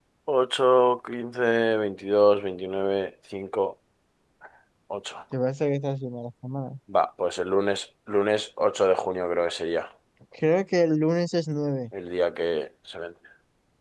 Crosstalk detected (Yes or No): No